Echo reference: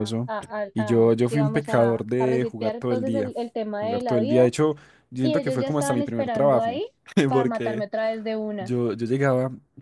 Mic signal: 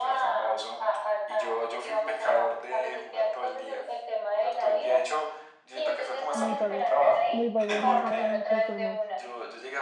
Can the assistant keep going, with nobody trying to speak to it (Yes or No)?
No